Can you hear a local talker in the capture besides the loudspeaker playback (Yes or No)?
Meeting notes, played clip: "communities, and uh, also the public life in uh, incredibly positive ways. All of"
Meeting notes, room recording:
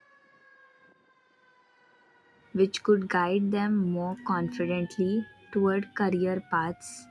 Yes